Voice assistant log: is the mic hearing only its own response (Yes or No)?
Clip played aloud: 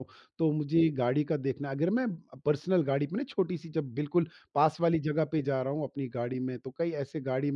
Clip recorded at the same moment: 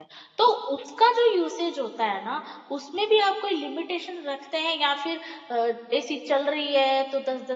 No